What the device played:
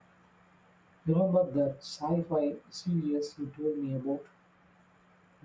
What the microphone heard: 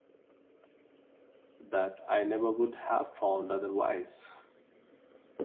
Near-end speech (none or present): present